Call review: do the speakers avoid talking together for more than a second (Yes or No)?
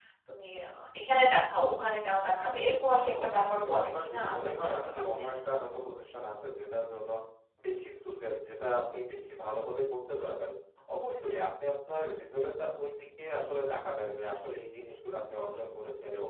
No